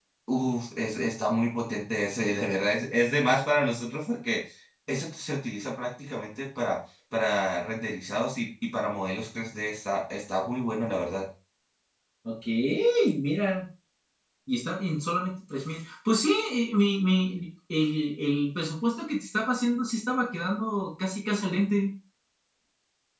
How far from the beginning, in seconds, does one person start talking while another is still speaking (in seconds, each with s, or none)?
none